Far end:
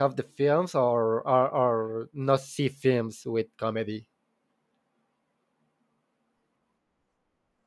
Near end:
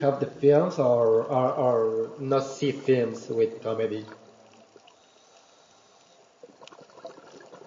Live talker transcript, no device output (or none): none